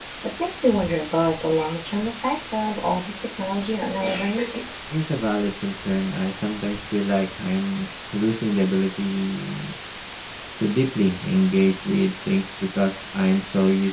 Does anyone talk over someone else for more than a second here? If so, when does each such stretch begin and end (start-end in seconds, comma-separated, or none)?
none